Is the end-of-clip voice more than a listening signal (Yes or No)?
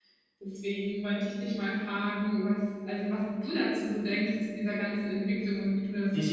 Yes